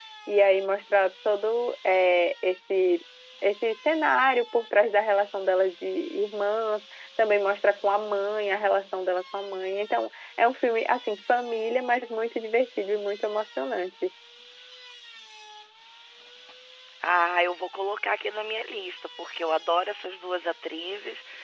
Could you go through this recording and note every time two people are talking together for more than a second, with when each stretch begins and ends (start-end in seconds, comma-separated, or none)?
none